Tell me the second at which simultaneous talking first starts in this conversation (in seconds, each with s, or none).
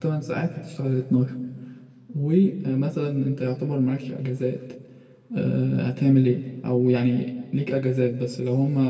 none